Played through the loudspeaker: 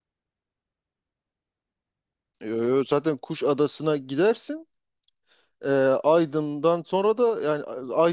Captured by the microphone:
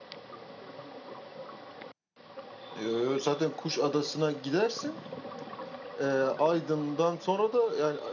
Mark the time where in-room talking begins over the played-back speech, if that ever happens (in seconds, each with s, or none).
none